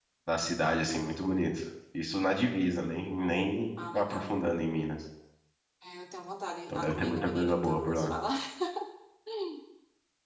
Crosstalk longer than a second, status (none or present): present